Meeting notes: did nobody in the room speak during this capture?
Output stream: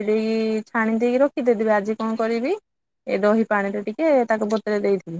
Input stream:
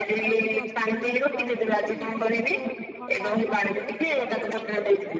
No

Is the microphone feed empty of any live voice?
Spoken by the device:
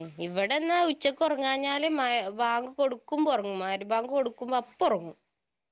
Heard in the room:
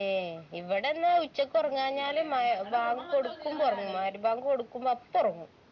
No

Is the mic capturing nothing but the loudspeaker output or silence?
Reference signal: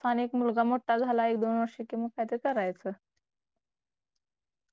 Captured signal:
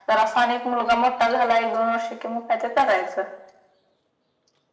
Yes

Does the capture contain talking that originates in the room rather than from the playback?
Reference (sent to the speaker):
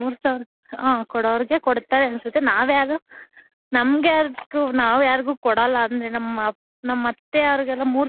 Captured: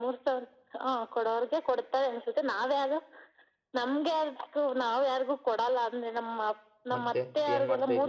Yes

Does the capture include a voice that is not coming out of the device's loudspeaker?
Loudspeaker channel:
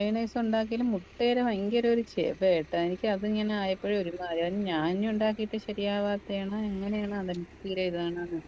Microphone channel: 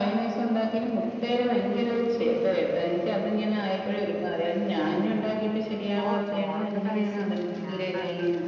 Yes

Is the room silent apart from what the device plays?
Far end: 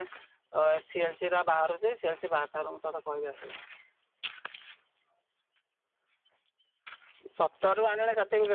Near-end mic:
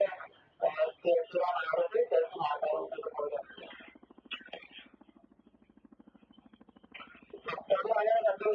Yes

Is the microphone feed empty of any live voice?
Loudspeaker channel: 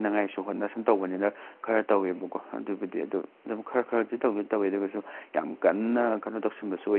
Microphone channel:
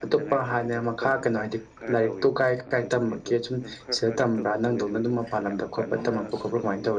No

